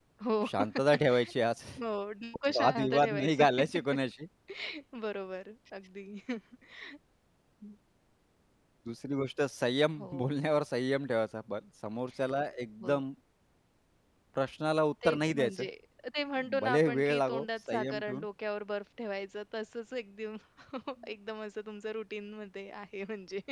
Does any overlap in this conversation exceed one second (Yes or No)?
Yes